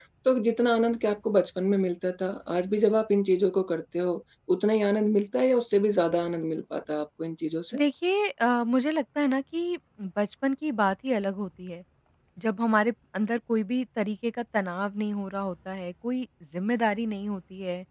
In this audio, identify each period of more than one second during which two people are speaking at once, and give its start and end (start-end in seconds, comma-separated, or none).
none